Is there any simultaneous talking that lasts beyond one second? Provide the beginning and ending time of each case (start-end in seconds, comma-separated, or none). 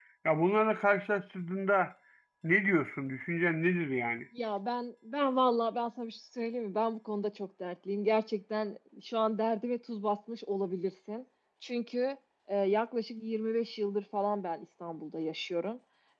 none